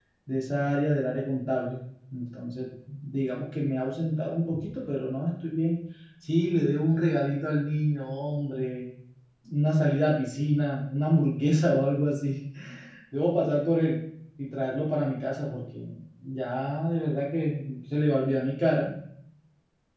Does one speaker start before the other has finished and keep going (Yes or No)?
No